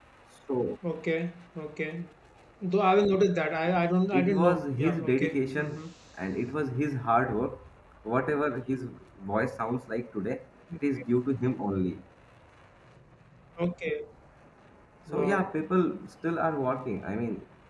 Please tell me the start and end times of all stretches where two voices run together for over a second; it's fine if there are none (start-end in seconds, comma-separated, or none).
4.2-5.8